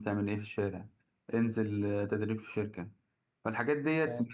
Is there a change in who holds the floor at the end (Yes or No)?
No